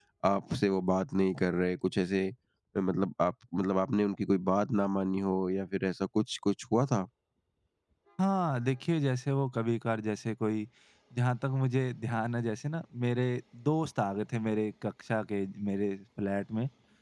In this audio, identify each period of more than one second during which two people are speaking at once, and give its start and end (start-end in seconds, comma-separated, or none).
none